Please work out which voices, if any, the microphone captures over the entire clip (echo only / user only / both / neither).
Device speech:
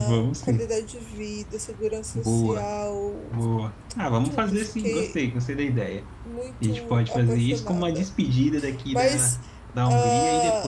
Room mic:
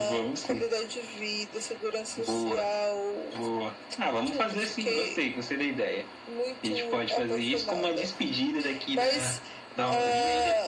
both